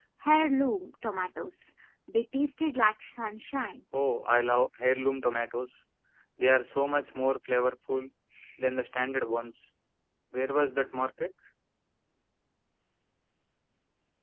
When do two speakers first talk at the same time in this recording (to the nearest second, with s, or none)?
none